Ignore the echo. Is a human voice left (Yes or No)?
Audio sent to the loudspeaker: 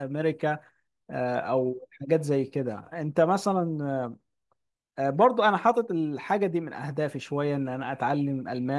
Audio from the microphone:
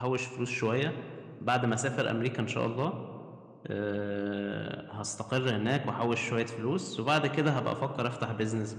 Yes